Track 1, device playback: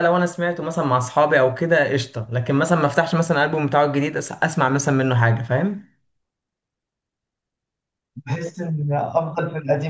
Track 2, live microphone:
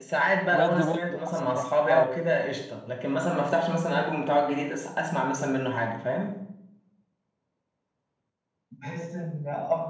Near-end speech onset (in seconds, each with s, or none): 0.5 s